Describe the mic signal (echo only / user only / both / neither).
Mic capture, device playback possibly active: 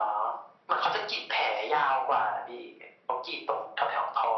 echo only